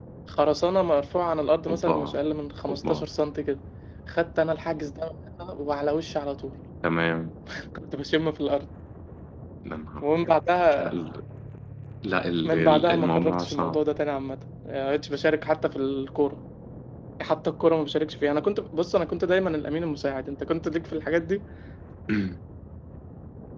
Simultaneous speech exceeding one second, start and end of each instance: 12.4-13.8

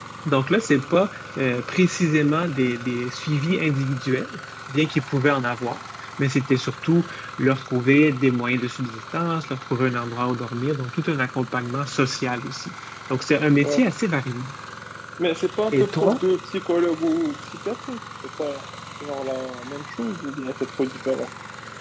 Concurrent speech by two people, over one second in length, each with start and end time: none

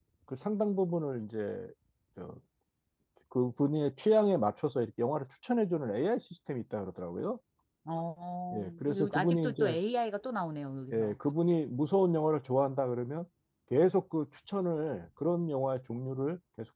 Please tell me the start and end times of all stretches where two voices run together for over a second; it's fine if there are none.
8.5-9.8

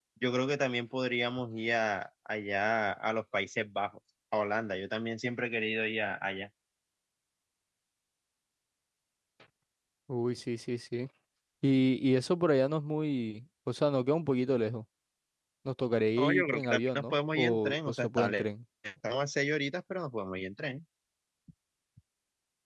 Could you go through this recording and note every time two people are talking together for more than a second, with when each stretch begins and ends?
16.2-18.4

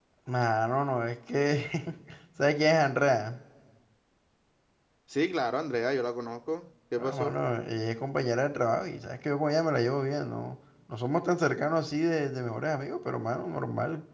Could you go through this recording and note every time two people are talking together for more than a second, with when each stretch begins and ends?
none

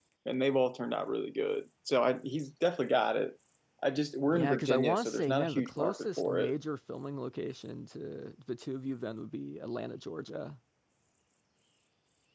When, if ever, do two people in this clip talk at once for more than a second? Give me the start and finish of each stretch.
4.3-6.5

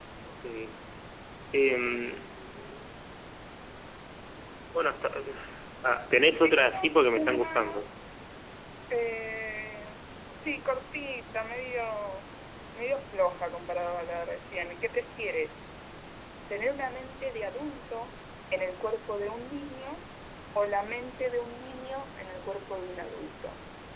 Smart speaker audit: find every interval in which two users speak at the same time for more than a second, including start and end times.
6.4-7.9

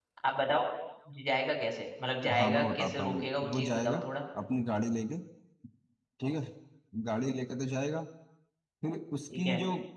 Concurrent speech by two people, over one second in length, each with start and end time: 2.4-4.0

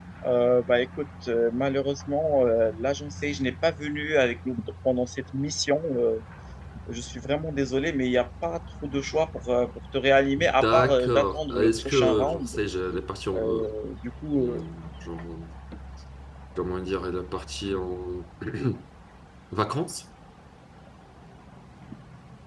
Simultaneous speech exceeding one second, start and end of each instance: 10.6-12.6

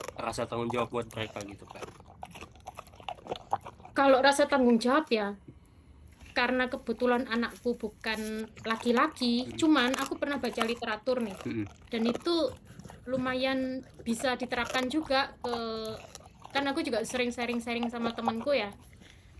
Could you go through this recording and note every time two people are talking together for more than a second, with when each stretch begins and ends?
none

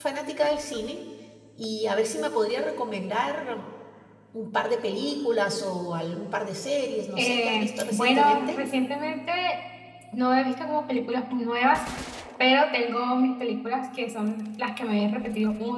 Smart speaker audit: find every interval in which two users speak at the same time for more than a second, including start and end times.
7.2-8.6

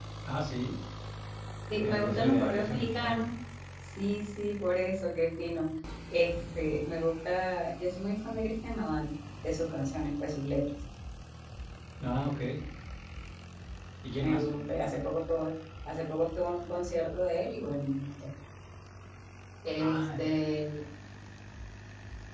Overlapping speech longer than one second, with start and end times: 1.8-3.2

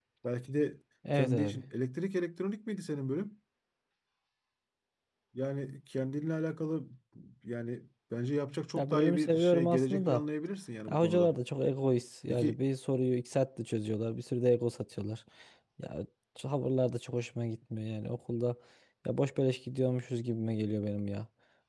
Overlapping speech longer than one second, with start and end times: 8.8-10.2

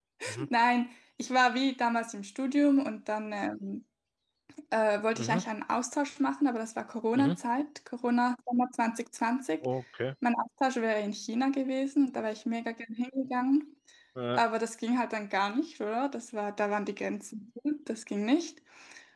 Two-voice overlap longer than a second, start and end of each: none

